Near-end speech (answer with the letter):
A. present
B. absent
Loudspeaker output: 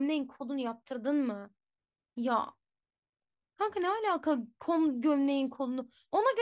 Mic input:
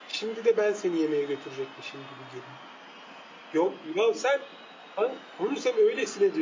A